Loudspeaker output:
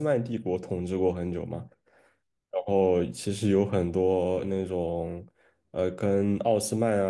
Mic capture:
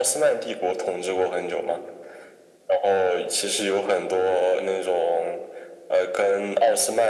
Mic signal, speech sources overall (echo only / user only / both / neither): echo only